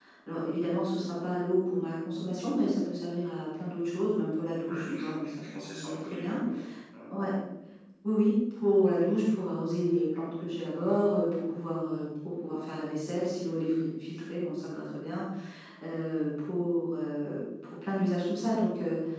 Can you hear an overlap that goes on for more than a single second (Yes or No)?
Yes